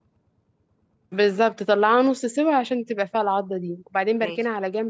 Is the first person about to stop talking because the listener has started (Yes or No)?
No